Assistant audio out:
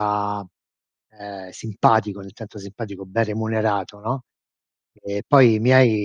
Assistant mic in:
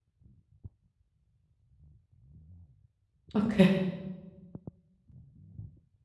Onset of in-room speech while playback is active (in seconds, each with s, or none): 3.3 s